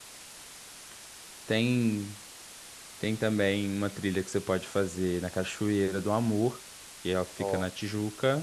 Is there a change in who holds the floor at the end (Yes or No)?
No